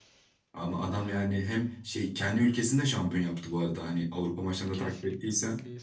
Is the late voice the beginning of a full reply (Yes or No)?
Yes